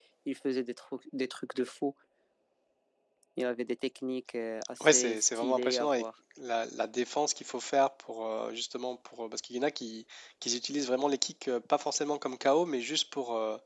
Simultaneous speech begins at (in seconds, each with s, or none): 4.8 s